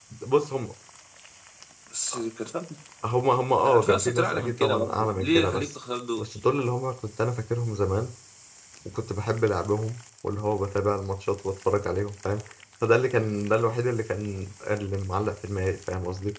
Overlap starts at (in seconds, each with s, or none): 3.6 s